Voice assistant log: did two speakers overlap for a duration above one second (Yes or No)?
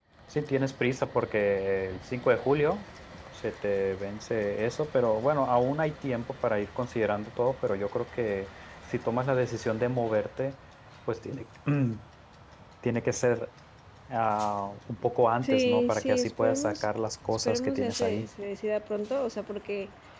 Yes